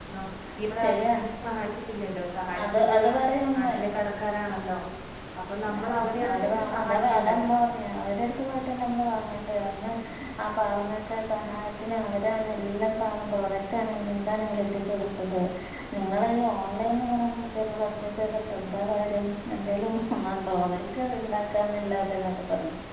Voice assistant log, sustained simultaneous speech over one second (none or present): present